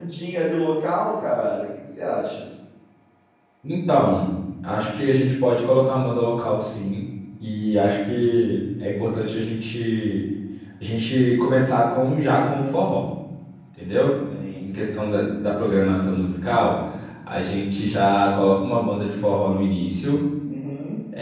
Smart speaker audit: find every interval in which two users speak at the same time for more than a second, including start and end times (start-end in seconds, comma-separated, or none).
none